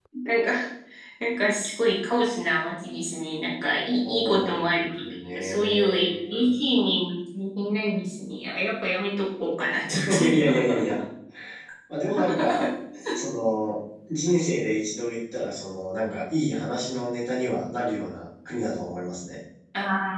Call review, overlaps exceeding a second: present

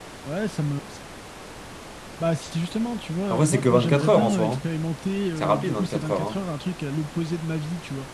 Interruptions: present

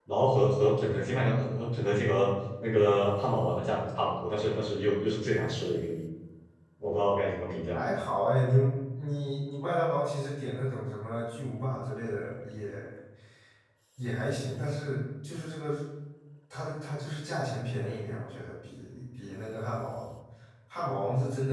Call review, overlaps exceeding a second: none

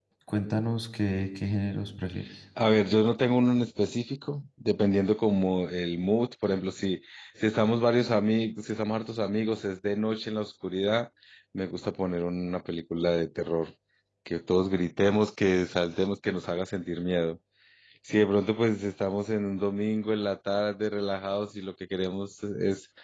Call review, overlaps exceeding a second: none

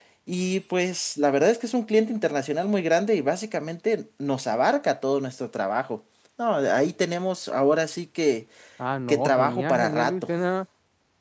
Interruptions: present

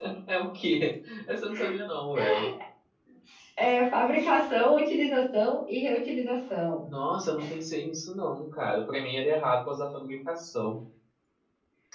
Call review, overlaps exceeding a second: none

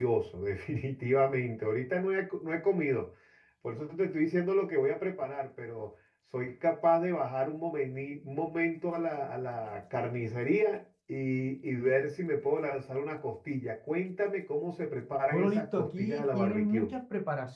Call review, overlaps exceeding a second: present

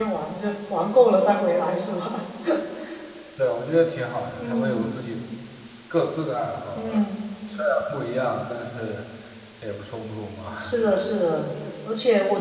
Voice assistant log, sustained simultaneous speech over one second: none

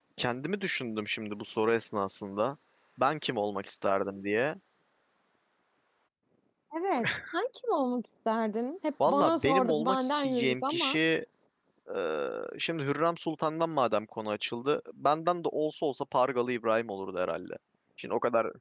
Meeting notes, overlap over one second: present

